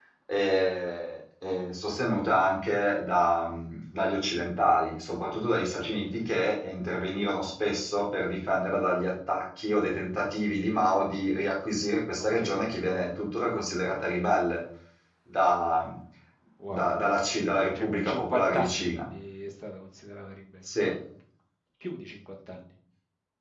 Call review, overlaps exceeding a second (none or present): present